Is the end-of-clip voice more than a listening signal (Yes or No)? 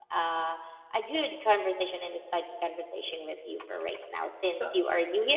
No